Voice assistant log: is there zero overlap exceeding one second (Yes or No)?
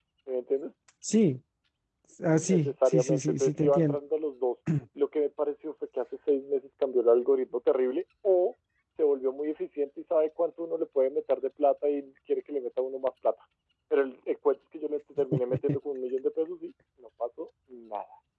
No